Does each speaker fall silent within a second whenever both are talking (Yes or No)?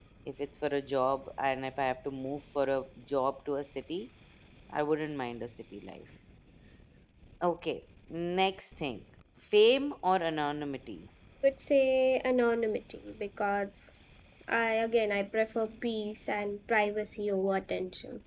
Yes